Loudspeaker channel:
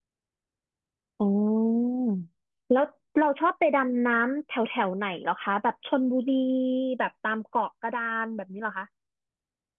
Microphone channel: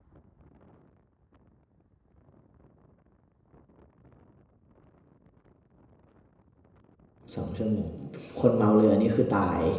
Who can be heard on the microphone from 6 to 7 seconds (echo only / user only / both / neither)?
neither